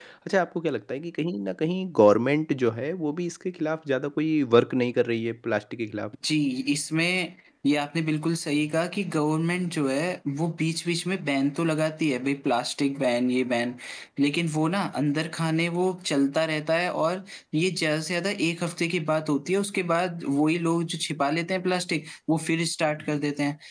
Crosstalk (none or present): none